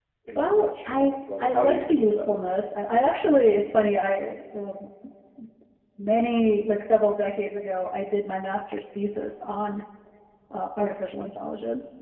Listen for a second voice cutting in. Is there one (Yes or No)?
Yes